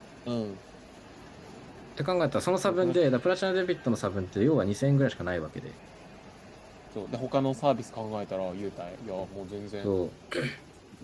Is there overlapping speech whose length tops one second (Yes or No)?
No